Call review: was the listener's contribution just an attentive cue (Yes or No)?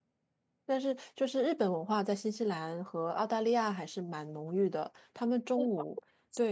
Yes